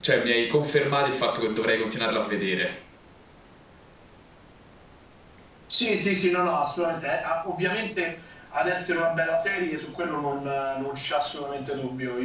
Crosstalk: none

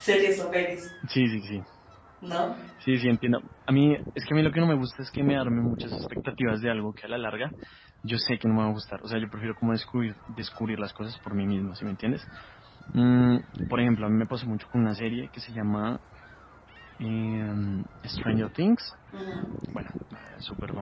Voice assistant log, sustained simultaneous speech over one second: none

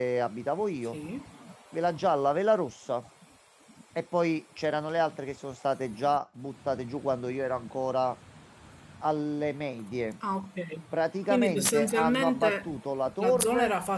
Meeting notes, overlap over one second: present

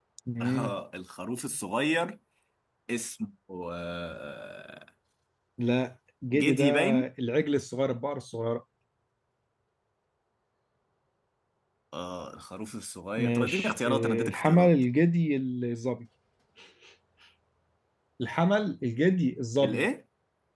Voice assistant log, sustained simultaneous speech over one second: present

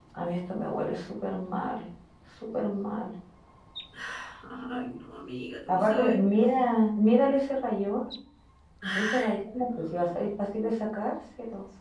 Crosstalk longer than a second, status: present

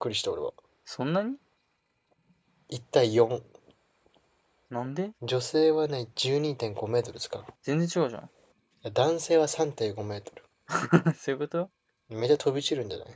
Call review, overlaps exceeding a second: none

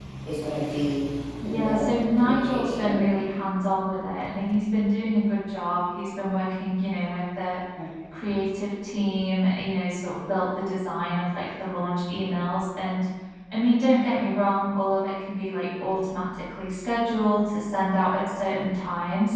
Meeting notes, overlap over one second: present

